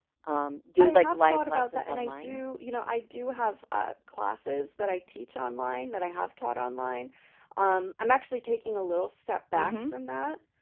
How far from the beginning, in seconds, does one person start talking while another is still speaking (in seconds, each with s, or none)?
0.8 s